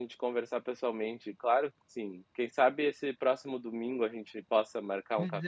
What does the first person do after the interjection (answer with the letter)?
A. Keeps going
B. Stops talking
B